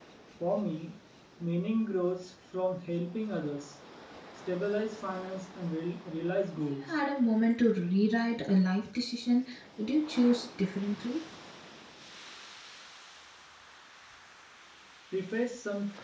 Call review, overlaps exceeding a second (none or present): none